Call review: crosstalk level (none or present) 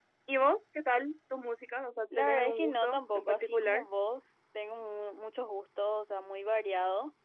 present